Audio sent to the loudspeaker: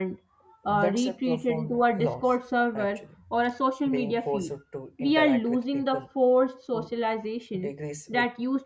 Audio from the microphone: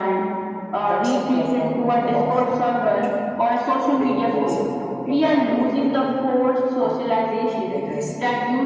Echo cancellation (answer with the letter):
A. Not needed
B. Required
B